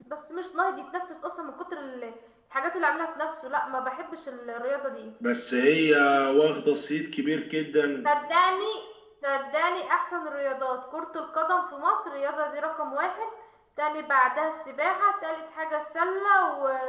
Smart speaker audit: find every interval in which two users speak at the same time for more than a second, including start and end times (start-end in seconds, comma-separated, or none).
none